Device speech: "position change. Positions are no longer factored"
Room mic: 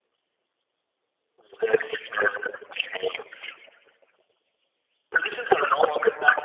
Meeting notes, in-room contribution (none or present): none